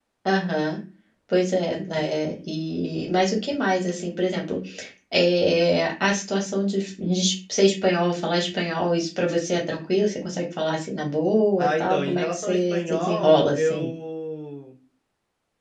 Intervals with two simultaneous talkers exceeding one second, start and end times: 11.6-13.9

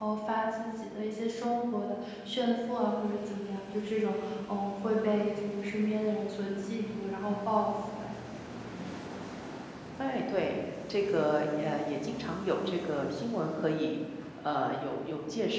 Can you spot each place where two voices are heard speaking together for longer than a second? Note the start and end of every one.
none

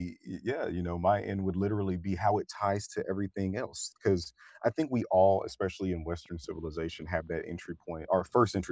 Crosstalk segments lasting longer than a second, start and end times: none

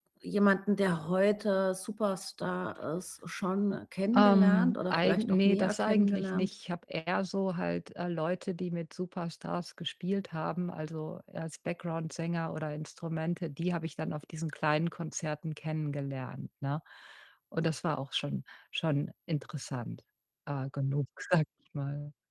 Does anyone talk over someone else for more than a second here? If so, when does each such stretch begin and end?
4.1-6.5

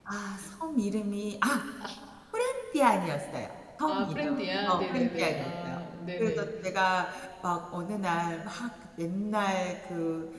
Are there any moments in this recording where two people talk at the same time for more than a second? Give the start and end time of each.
3.9-5.8

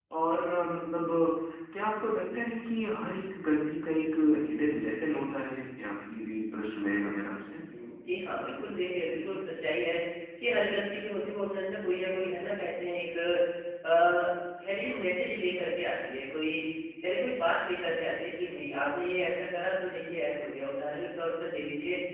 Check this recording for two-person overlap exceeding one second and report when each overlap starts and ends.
none

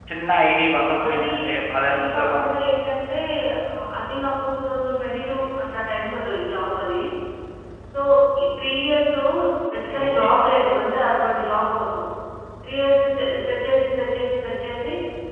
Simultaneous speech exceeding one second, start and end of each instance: none

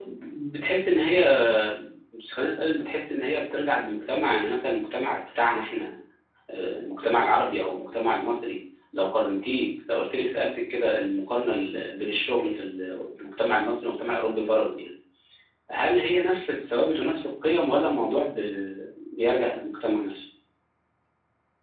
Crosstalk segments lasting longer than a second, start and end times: none

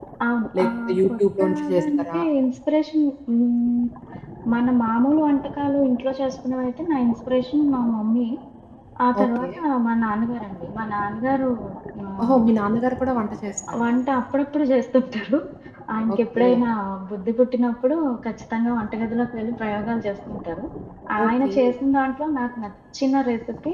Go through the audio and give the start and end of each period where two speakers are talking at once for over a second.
0.6-2.2

